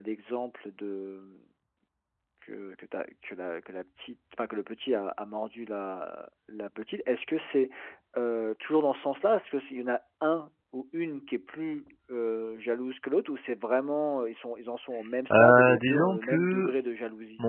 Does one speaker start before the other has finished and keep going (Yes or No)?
Yes